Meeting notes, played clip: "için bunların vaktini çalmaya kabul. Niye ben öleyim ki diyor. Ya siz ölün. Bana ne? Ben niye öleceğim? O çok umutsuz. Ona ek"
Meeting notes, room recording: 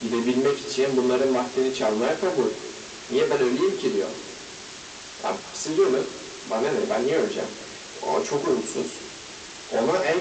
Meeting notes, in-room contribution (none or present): none